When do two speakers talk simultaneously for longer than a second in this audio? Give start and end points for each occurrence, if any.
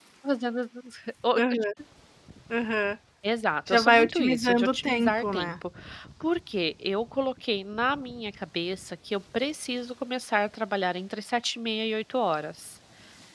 3.7-5.5

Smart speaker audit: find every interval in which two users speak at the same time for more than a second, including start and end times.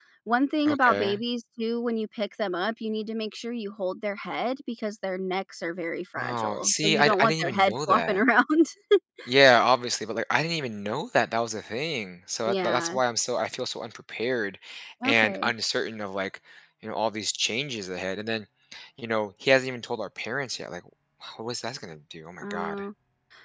6.2-8.2

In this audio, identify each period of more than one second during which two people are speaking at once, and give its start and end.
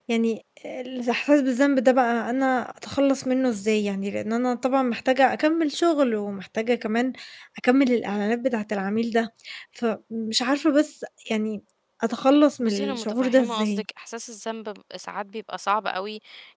12.6-13.8

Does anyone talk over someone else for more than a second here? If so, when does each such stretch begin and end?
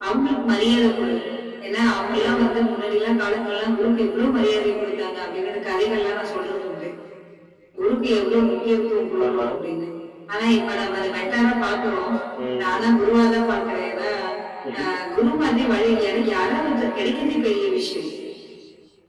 none

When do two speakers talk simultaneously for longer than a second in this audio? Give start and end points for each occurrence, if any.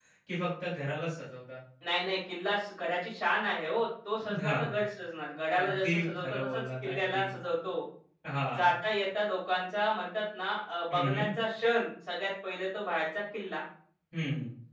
5.6-7.2

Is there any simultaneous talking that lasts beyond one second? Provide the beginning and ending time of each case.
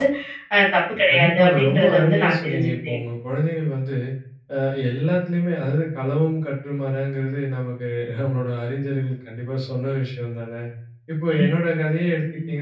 1.1-2.9

